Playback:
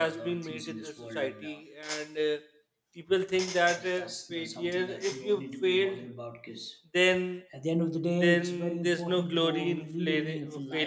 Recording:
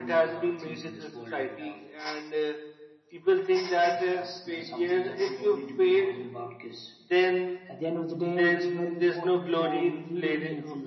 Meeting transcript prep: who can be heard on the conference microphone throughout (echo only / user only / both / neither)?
echo only